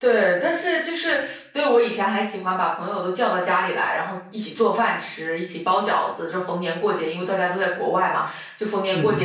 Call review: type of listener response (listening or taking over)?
listening